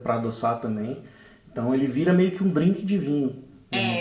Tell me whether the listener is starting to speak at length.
Yes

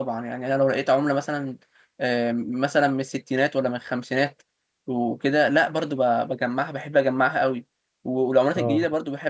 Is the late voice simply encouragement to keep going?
Yes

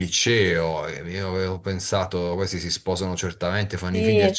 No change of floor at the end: Yes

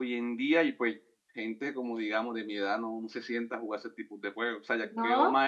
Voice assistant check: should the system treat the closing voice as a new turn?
No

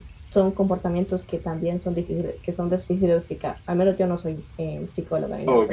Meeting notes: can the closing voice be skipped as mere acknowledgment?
No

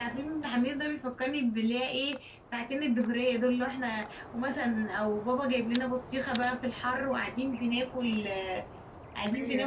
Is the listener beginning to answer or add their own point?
No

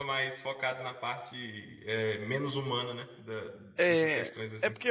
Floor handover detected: Yes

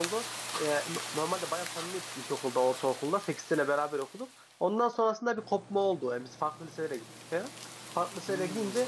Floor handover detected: No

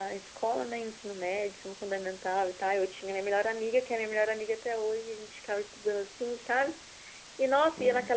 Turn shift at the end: No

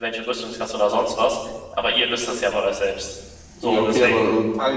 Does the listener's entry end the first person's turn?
Yes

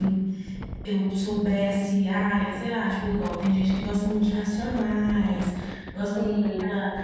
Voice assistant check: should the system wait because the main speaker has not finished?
Yes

